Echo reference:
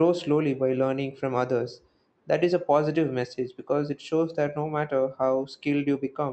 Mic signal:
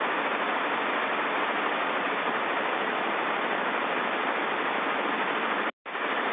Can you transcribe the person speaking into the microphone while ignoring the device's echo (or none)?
none